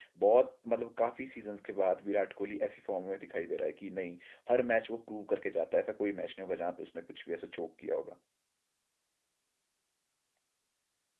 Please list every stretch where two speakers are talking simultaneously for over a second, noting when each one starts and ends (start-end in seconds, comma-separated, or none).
none